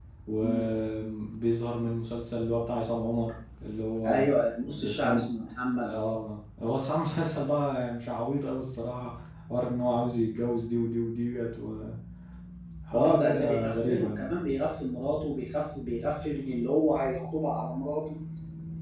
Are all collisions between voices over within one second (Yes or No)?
No